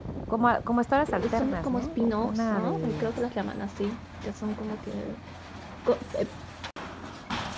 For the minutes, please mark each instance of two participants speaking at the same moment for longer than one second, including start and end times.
1.1-3.1

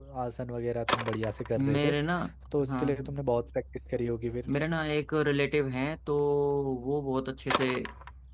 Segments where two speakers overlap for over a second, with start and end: none

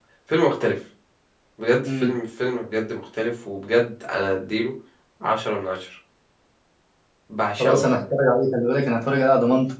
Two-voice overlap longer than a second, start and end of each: none

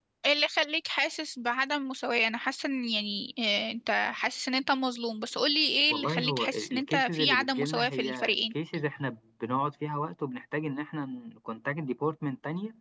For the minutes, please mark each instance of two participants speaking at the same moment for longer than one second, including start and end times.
5.9-8.5

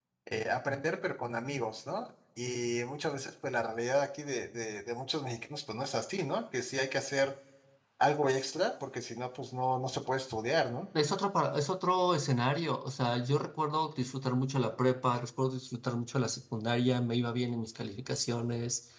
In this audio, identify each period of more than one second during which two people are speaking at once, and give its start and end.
none

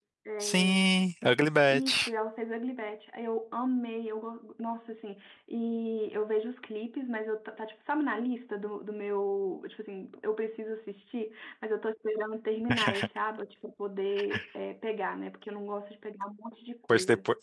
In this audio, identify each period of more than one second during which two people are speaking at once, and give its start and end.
none

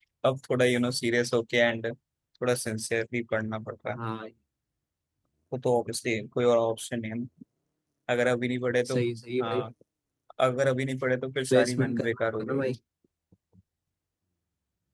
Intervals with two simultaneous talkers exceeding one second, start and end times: 11.5-12.7

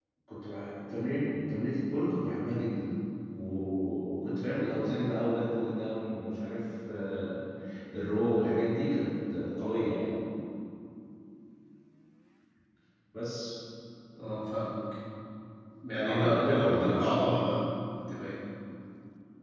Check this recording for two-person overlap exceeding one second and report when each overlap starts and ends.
16.0-17.3

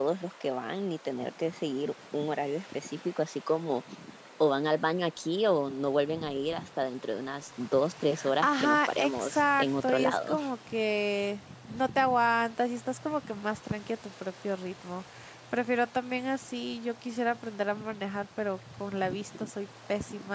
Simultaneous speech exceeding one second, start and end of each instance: 8.4-10.4

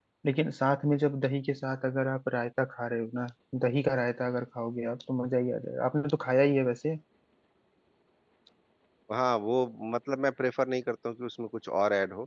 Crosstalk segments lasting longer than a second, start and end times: none

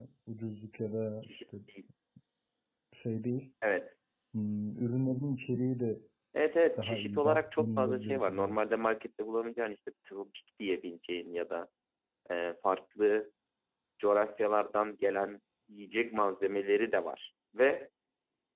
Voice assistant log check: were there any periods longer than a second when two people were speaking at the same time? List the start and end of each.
6.8-8.6

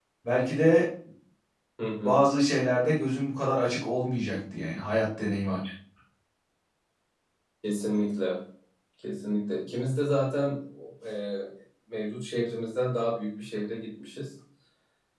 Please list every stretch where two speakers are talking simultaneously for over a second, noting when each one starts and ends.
none

